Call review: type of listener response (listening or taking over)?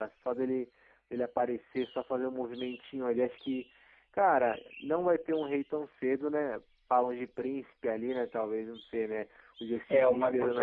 taking over